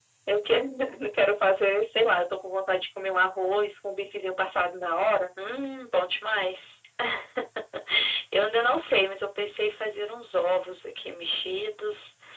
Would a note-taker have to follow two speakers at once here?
No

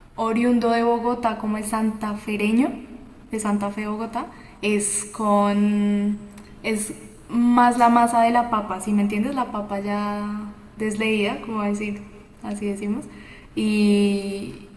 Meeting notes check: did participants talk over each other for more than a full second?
No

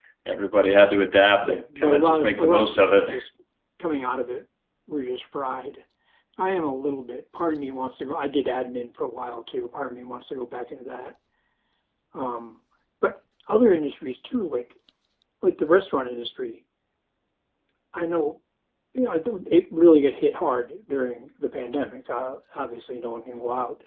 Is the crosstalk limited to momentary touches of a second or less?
No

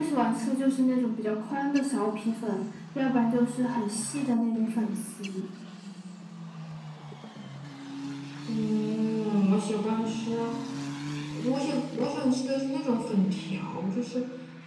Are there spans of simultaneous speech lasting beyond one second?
No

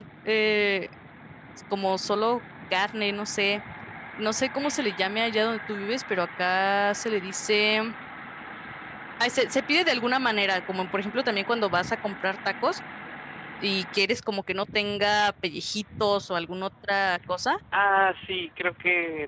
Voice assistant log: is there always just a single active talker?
Yes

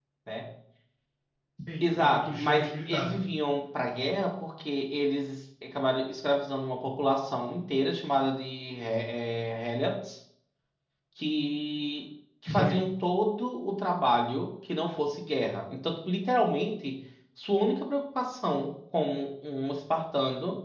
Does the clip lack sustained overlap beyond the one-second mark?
No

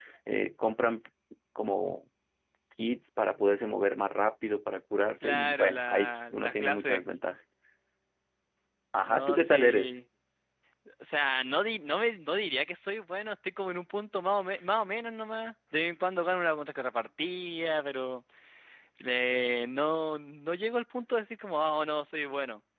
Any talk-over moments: Yes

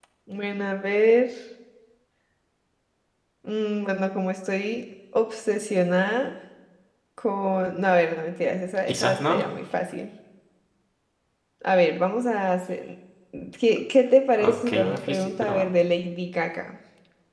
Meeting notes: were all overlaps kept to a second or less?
No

